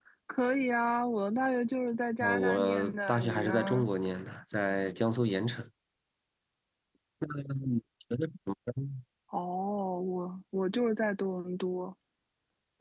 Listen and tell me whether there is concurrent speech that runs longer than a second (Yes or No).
Yes